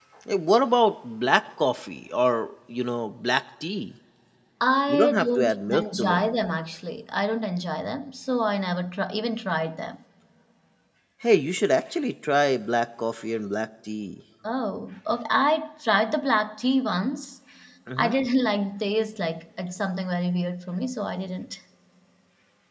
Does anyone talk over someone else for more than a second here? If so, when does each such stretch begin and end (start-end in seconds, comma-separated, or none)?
4.9-6.3